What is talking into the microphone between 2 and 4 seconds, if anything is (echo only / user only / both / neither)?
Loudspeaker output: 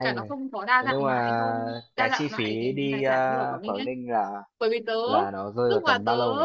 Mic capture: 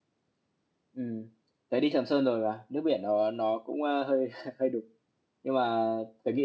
user only